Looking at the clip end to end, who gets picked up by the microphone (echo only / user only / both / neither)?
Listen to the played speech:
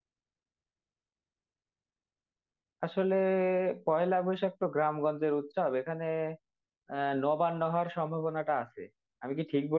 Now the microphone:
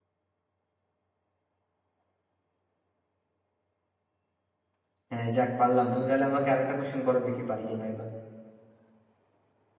user only